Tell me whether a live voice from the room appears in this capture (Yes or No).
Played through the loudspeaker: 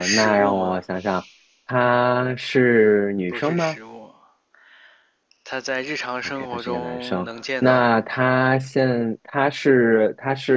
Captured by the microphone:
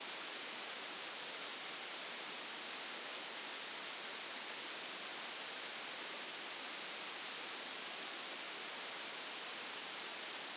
No